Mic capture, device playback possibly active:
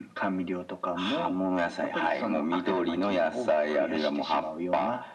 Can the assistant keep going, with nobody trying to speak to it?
Yes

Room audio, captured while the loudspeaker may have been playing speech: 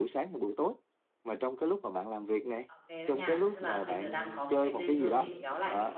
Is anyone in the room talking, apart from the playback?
Yes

